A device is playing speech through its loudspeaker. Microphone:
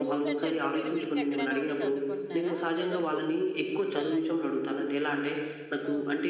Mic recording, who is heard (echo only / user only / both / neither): both